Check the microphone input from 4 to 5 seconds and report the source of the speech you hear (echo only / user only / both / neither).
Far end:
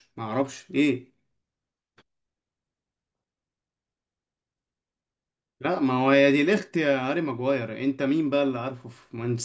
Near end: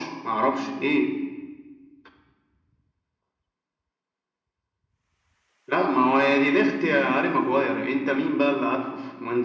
neither